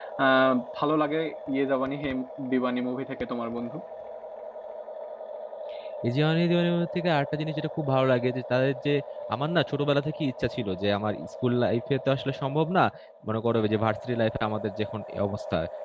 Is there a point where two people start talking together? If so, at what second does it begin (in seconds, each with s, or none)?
none